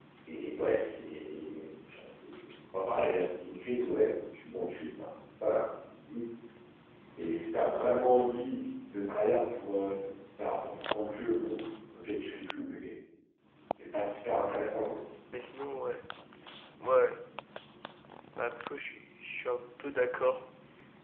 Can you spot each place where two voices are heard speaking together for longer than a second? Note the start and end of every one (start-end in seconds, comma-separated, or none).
none